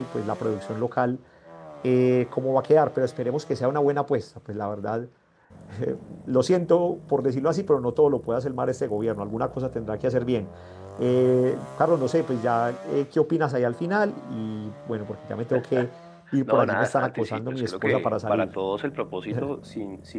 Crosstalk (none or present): present